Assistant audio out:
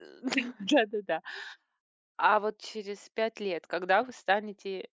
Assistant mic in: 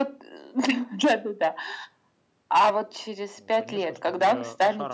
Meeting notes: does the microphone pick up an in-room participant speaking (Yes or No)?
Yes